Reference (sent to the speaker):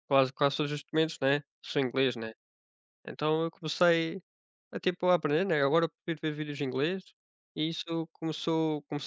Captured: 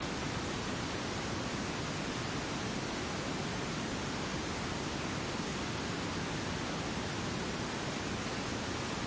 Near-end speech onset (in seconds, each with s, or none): none